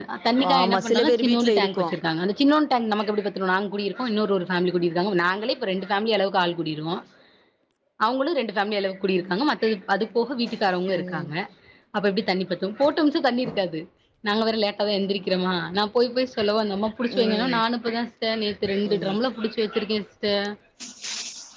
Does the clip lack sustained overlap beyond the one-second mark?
No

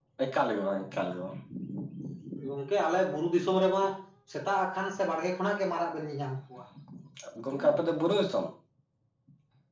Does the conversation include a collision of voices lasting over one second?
No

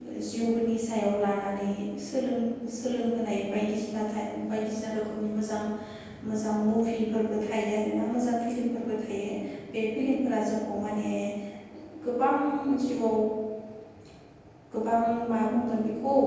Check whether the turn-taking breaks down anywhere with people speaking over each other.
No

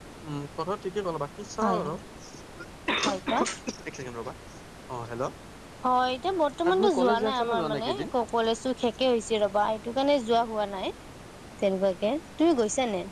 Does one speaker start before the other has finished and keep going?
Yes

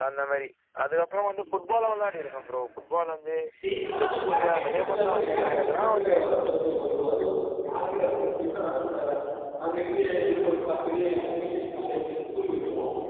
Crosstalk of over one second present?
Yes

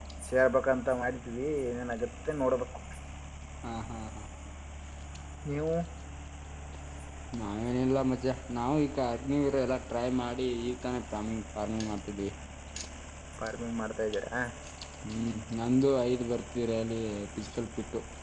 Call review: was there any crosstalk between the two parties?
No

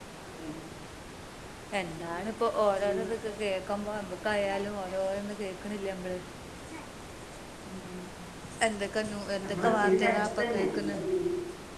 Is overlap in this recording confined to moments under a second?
No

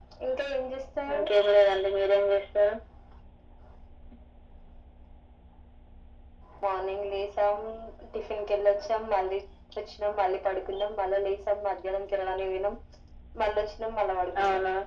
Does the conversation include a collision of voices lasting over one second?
No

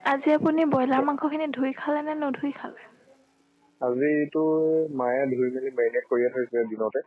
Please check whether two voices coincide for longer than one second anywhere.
No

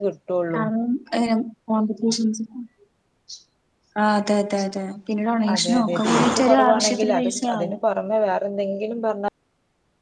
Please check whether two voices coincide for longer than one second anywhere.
Yes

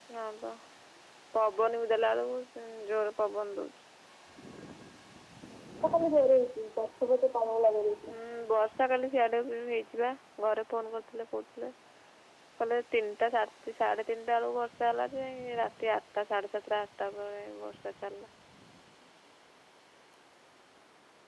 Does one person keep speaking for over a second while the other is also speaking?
No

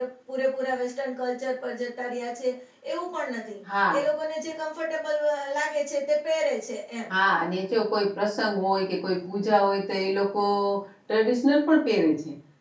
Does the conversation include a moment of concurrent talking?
No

